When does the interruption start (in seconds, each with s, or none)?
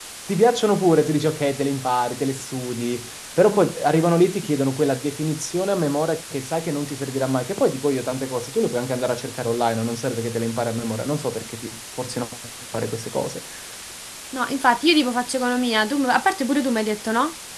none